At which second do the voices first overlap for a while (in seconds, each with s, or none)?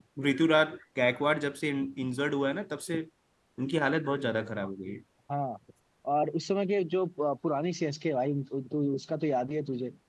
none